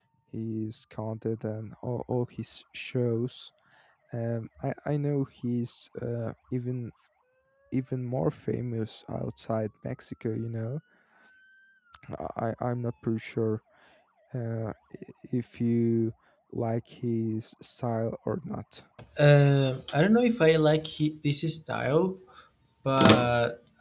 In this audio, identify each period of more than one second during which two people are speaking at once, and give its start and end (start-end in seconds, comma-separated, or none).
none